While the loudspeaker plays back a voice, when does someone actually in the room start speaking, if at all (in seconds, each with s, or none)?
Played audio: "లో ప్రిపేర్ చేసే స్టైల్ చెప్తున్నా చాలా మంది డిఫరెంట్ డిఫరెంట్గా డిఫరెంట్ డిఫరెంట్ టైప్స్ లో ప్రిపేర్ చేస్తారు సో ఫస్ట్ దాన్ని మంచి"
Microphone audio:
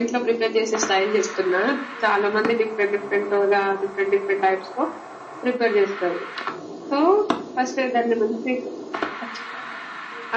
none